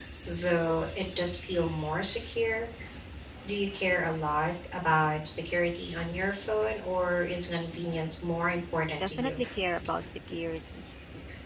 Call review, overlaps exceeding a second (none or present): none